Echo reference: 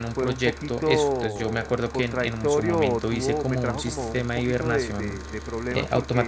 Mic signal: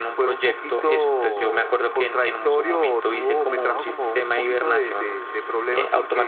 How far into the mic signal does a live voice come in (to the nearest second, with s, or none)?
none